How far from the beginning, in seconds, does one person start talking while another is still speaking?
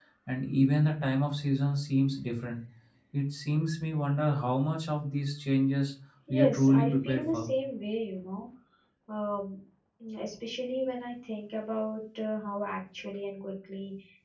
6.3 s

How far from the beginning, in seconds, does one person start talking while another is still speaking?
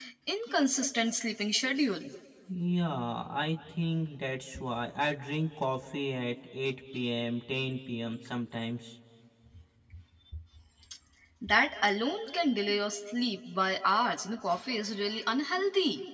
none

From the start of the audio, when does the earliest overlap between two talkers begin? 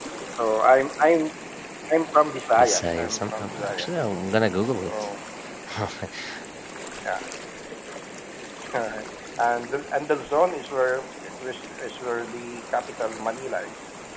2.6 s

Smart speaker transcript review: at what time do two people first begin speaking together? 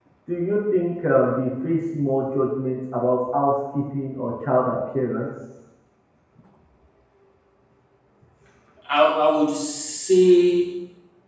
none

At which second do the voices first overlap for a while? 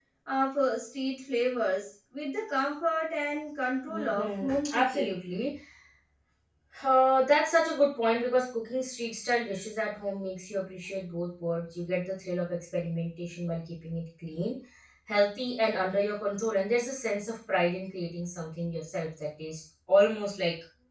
3.9 s

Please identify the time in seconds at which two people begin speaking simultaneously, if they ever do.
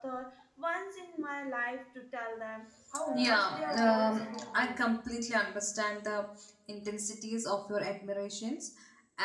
3.1 s

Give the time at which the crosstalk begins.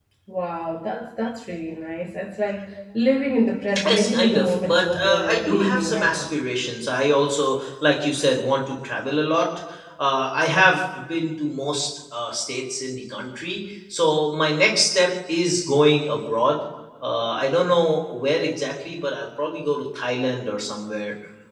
3.8 s

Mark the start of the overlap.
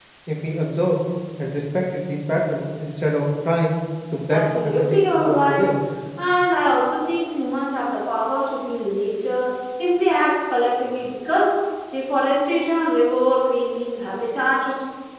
4.3 s

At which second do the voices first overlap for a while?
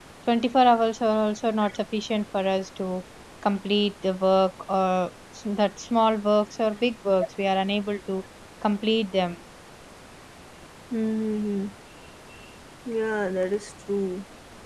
none

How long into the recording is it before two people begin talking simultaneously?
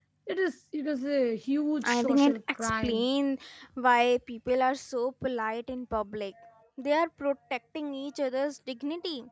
1.8 s

